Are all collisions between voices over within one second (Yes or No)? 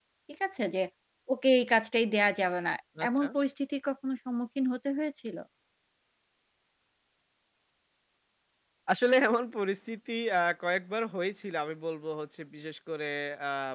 Yes